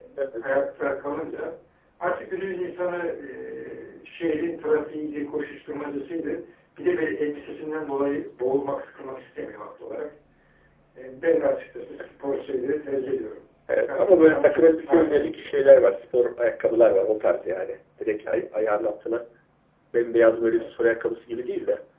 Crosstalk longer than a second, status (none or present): present